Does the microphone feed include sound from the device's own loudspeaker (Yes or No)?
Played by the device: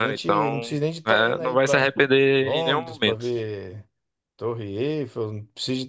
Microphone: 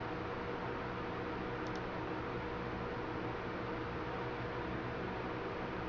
No